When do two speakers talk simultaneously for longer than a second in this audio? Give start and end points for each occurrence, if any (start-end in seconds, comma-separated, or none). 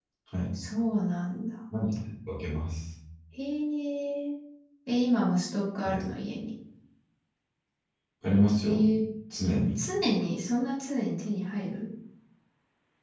none